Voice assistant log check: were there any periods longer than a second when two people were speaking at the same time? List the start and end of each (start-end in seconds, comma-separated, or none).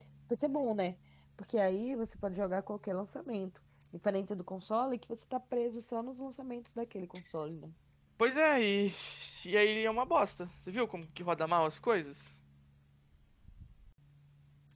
none